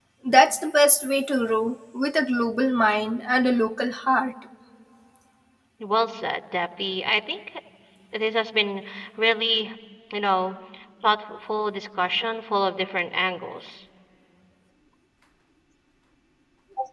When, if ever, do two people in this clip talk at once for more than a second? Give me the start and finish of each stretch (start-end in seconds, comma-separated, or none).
none